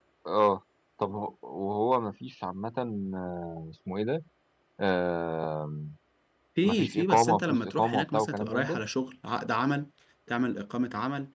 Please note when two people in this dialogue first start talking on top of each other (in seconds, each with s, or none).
6.6 s